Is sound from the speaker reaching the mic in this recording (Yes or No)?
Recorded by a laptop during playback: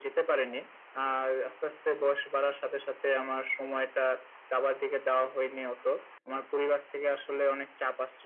Yes